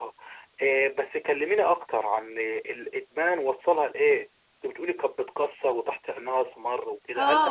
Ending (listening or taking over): taking over